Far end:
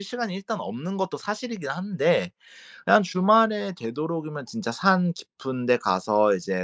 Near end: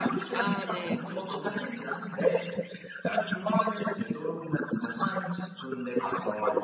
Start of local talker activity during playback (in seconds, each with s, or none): 0.3 s